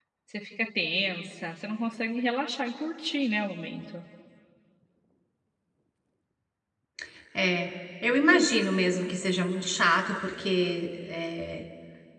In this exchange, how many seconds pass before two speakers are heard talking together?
none

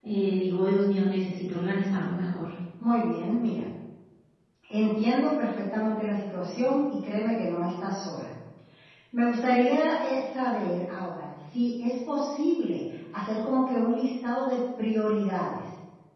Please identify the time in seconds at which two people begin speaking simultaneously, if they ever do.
none

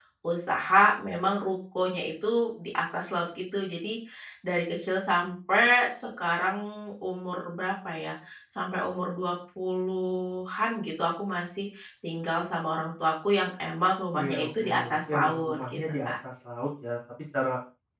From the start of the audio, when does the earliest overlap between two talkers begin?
14.2 s

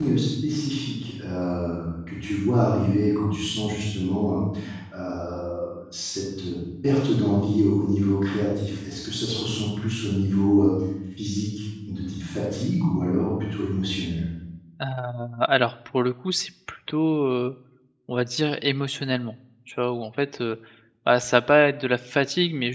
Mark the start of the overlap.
none

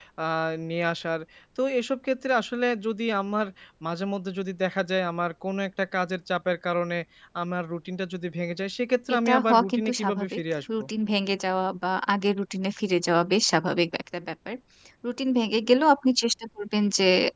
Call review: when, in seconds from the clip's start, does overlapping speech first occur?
9.1 s

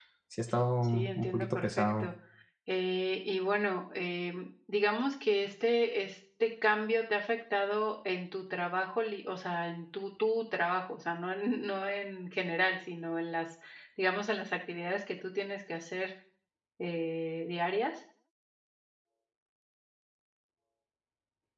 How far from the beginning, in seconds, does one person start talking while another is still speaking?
0.8 s

